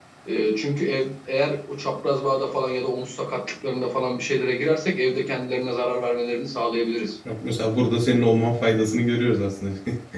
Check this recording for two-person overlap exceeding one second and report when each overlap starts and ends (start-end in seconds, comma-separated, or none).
none